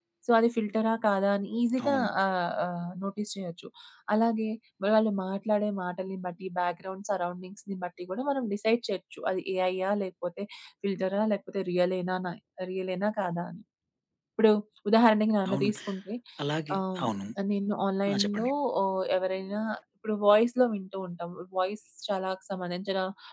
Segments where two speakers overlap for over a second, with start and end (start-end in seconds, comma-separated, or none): none